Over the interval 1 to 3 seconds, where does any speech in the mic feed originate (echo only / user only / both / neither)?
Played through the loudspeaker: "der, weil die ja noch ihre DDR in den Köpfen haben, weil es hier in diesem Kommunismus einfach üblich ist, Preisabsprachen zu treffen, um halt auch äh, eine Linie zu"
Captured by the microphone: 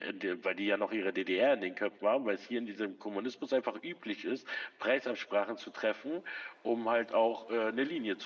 echo only